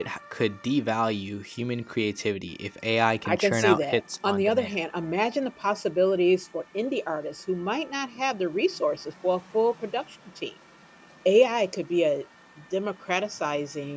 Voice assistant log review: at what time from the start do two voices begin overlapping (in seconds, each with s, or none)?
3.2 s